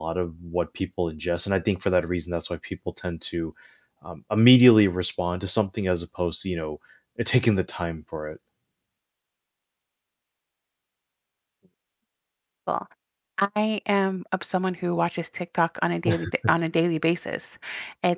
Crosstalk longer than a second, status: none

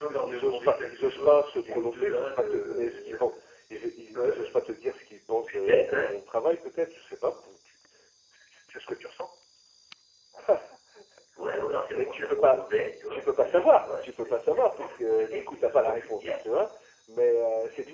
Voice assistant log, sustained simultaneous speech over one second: present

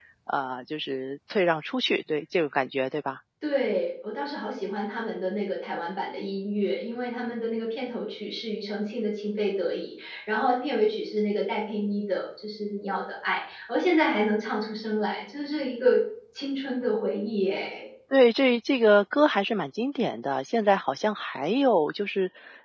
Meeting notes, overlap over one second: none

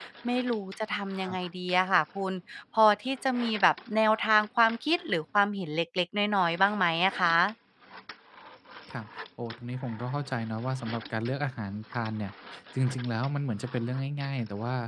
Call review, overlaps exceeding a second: none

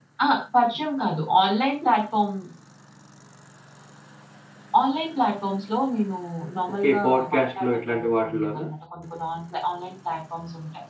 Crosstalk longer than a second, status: present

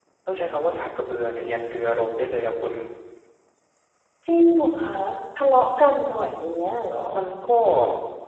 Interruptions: none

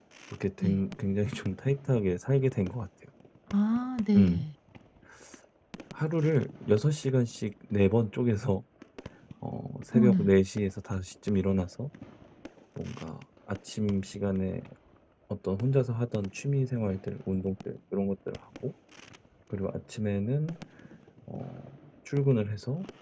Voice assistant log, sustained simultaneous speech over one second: none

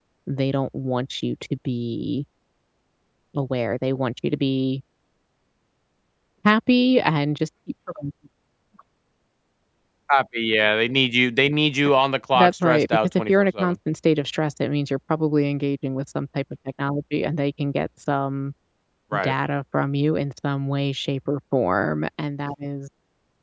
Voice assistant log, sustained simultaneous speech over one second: present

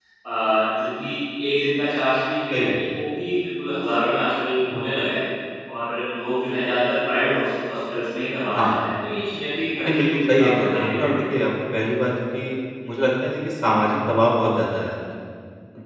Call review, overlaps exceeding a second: present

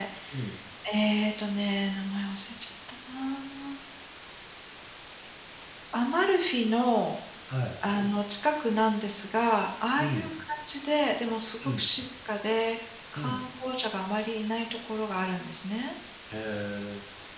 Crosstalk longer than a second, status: none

